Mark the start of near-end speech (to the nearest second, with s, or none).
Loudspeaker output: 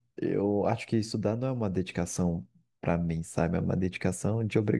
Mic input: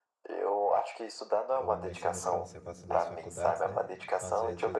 2 s